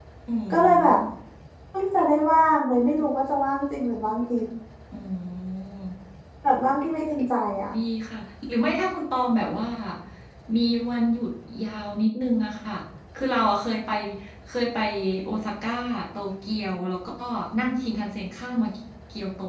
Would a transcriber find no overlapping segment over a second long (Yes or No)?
Yes